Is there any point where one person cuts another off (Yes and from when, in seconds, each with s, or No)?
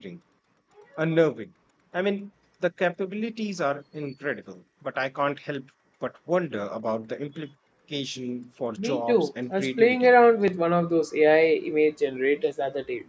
Yes, from 8.8 s